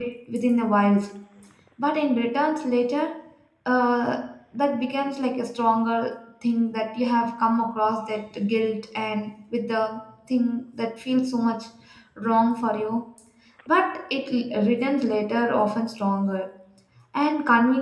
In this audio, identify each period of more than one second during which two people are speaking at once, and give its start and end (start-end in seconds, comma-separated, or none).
none